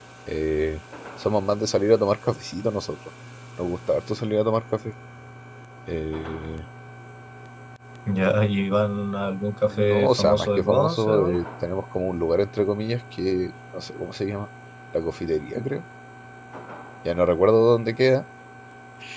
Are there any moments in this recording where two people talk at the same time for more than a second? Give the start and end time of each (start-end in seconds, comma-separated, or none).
9.7-11.4